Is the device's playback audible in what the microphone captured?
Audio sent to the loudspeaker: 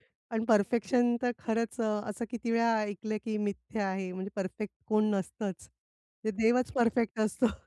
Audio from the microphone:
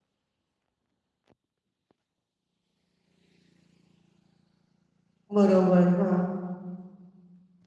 No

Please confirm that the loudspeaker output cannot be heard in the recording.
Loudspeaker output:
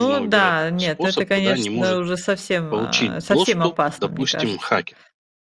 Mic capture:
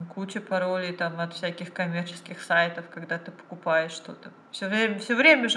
Yes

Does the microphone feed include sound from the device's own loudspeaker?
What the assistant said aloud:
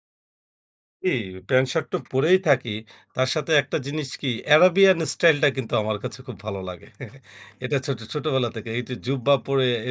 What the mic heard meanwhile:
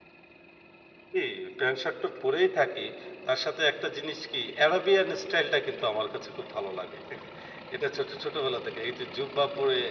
Yes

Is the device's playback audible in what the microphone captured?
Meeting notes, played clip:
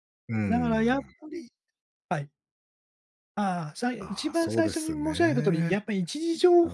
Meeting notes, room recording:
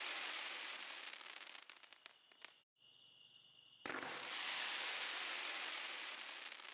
No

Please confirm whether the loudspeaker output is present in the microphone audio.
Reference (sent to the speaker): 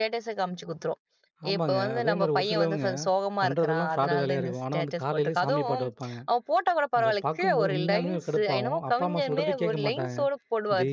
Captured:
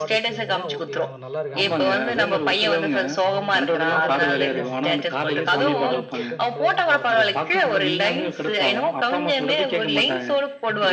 Yes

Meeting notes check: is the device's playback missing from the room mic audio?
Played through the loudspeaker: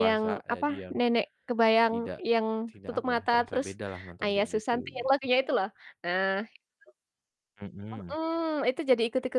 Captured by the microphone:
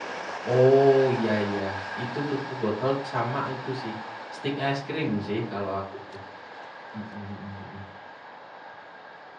Yes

